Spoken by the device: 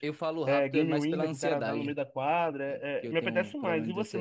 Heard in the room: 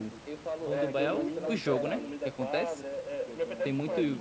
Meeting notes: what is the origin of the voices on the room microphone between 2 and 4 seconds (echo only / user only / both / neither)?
both